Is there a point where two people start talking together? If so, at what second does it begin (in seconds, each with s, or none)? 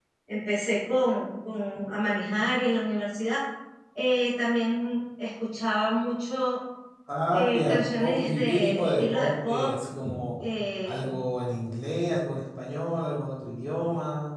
7.3 s